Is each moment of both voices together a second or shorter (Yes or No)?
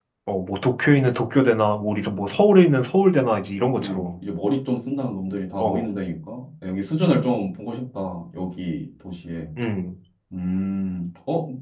Yes